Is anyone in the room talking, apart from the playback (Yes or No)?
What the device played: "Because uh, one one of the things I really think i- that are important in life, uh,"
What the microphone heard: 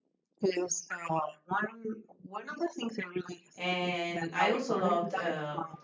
Yes